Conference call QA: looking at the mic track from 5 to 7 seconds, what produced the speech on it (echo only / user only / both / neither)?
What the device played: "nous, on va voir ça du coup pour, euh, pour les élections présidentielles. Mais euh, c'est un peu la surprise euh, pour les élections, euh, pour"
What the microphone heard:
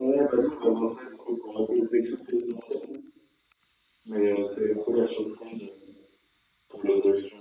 echo only